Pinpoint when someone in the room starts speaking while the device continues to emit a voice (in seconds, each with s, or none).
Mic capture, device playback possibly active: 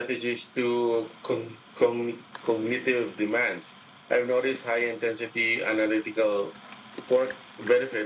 none